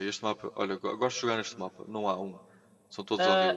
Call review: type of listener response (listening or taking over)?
taking over